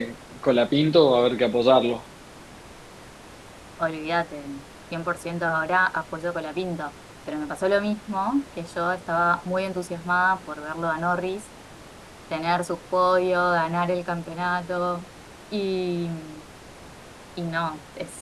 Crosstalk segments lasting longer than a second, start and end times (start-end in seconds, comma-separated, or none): none